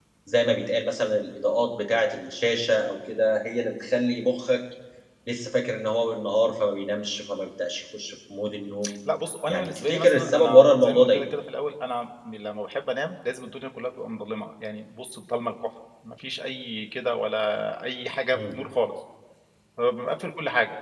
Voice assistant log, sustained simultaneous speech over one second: present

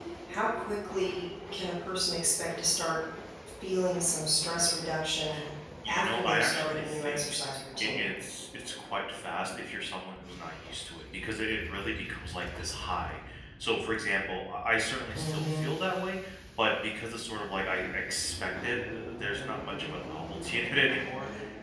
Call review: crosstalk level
present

